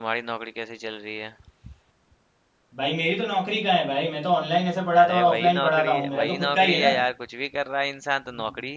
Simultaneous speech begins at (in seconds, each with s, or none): 5.0 s